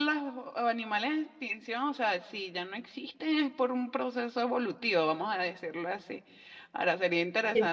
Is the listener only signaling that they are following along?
No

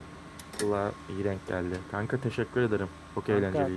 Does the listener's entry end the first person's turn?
Yes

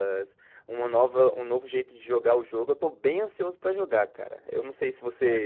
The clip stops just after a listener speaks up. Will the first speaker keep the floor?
Yes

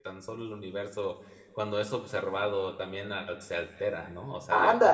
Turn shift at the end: Yes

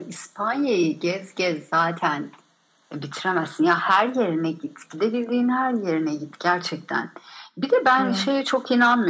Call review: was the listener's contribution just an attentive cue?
Yes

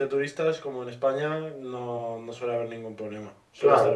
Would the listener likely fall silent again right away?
No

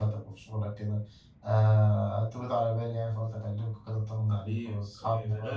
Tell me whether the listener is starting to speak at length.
Yes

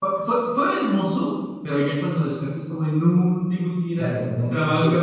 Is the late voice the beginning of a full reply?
Yes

